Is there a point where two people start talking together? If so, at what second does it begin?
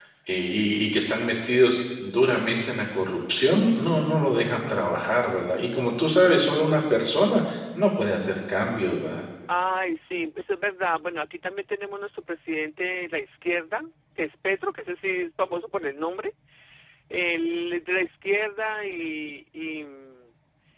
none

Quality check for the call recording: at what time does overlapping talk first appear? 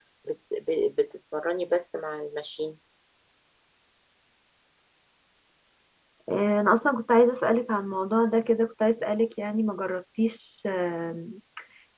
none

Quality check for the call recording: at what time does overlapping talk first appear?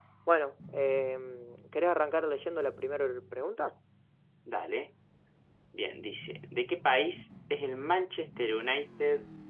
none

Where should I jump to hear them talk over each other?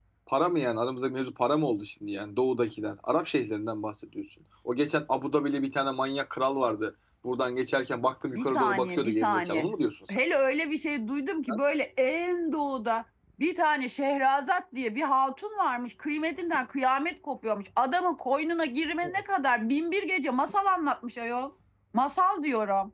8.3 s

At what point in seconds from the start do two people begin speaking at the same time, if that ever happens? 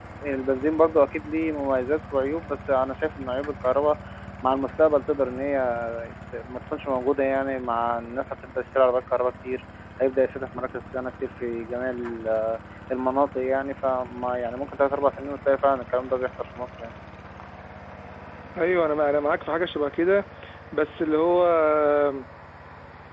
none

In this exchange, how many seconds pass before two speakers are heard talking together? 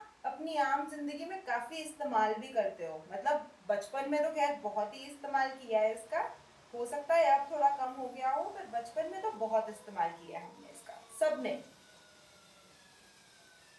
none

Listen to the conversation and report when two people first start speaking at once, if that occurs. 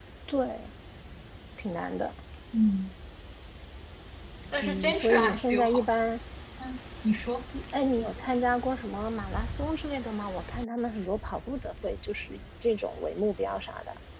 4.6 s

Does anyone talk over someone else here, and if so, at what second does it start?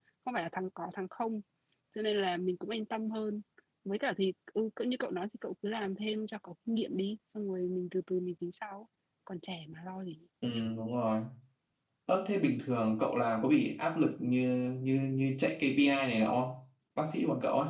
none

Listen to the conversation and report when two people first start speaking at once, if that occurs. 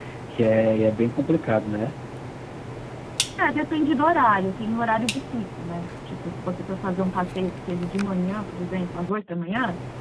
none

